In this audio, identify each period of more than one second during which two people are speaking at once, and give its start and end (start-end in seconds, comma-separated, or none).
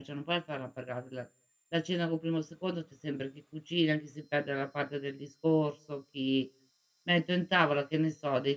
none